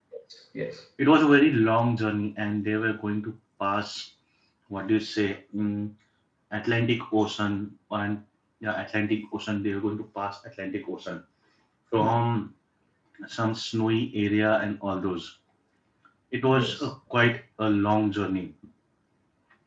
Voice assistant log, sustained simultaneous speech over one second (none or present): none